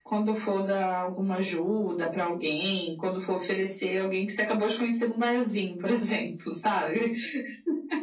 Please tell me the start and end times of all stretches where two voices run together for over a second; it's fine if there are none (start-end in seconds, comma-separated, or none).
none